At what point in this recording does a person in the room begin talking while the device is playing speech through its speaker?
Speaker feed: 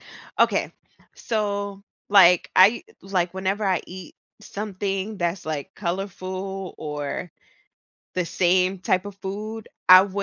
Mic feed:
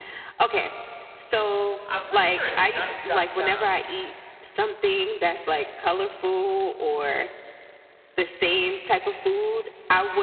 1.9 s

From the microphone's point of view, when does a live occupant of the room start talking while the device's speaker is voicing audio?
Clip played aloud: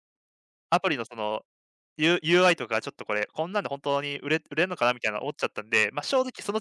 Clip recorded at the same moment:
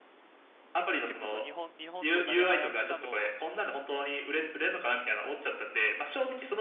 1.1 s

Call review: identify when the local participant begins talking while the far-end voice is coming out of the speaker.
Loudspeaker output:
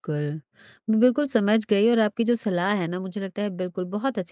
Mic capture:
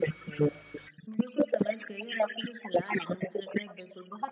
none

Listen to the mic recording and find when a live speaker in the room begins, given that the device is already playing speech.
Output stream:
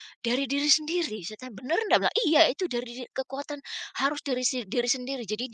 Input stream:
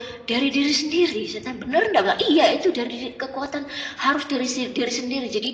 none

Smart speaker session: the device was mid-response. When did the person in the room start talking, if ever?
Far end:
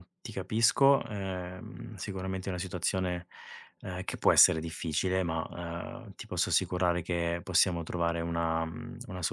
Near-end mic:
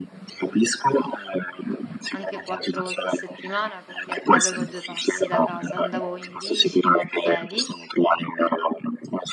2.1 s

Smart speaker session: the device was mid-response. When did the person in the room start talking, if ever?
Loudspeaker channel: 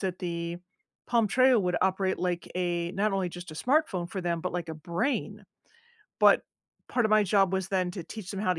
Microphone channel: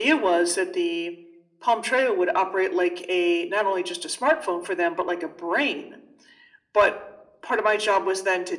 none

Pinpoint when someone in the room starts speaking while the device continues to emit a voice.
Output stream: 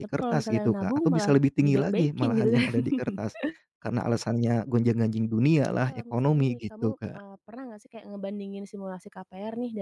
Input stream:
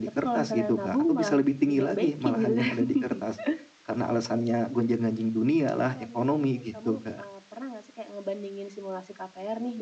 none

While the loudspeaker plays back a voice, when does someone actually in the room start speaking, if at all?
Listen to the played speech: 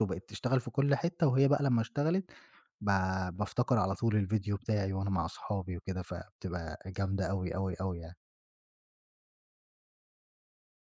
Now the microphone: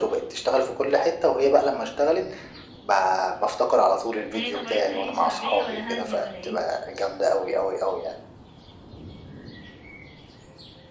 4.3 s

